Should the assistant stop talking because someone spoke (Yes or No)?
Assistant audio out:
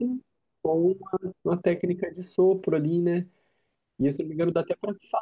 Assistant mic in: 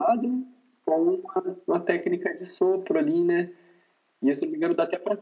No